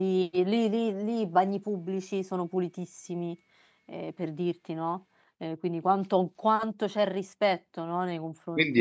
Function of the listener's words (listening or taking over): taking over